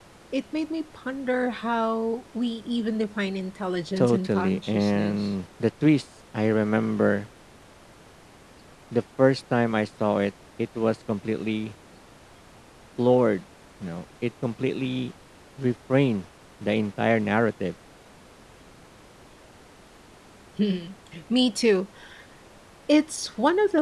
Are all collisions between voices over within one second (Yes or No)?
No